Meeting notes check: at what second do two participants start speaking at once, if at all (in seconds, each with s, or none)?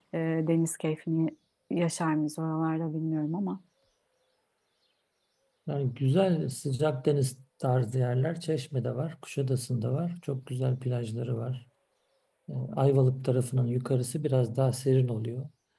none